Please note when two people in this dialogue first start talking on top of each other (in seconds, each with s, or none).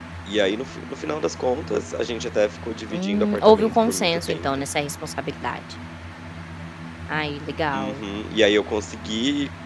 2.9 s